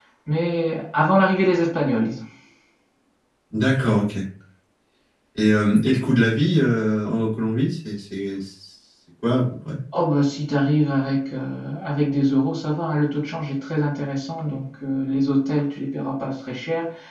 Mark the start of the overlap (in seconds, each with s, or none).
none